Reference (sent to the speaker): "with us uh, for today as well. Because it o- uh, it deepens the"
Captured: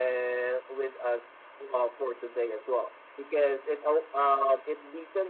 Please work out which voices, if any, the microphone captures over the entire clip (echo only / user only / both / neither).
echo only